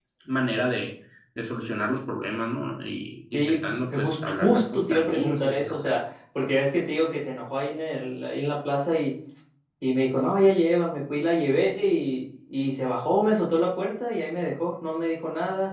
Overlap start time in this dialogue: 3.3 s

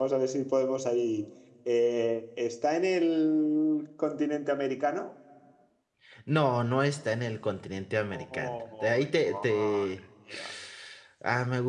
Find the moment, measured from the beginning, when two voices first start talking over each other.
8.1 s

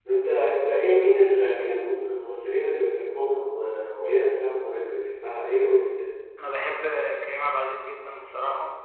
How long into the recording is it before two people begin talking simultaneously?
none

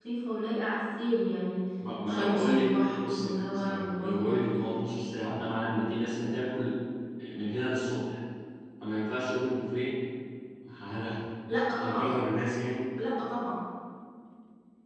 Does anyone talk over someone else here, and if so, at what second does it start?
2.1 s

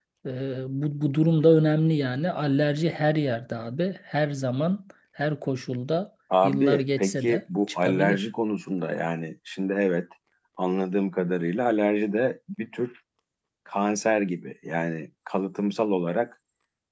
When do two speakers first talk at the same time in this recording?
6.3 s

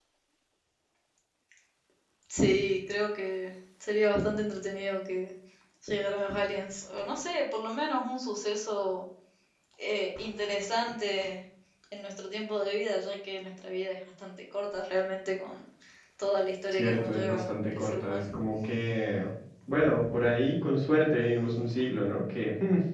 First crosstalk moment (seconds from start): 16.7 s

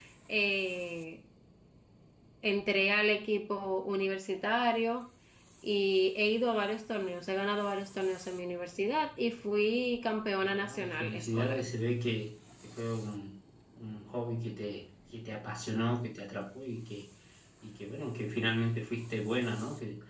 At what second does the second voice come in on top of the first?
10.4 s

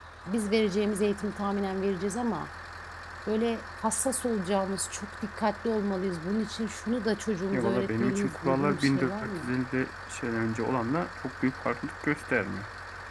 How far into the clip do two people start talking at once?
7.5 s

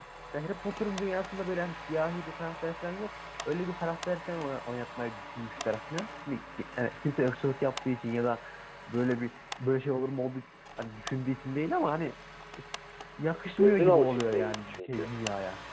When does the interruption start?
13.6 s

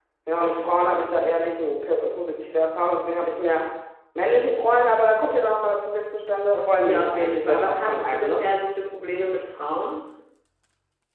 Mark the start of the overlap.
6.9 s

